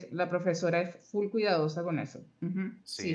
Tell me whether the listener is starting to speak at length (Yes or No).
Yes